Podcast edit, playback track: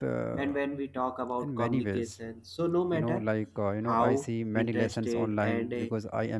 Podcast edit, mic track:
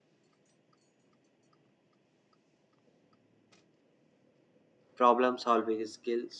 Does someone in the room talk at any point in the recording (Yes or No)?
Yes